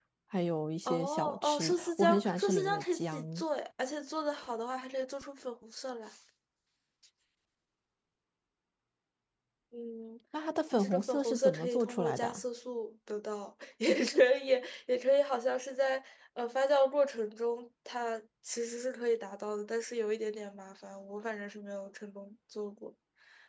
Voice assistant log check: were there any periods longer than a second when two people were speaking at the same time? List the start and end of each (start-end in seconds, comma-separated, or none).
0.8-3.4, 10.8-12.4